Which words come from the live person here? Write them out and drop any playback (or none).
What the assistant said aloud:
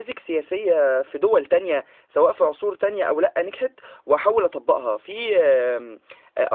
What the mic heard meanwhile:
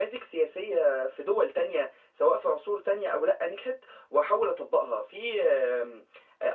none